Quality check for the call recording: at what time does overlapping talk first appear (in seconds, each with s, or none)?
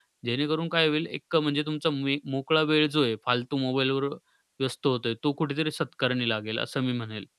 none